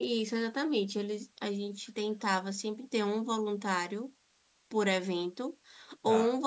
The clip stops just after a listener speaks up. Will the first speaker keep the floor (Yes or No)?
Yes